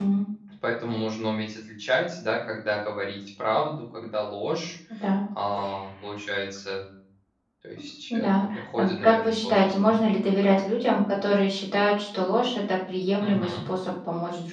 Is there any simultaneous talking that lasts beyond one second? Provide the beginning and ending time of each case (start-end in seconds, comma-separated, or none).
8.1-10.0